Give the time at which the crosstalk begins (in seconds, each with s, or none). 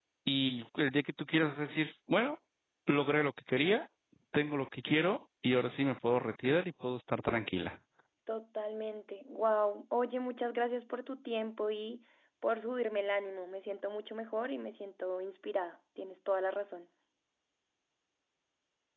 none